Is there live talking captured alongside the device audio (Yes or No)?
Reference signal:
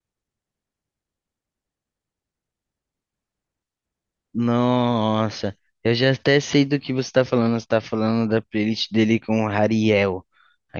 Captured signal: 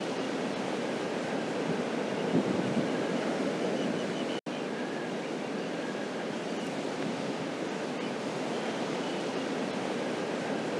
No